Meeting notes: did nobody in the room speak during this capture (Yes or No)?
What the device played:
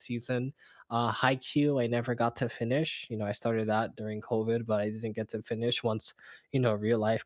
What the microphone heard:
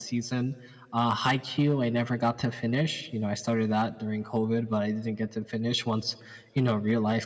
Yes